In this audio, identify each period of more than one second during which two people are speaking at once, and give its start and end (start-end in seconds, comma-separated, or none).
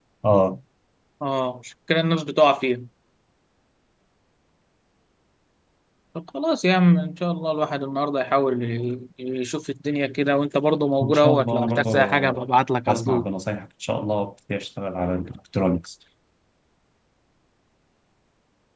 11.0-12.4